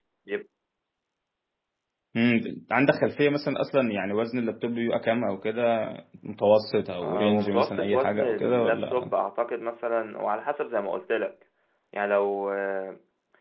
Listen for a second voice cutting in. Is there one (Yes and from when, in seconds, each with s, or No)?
Yes, from 7.0 s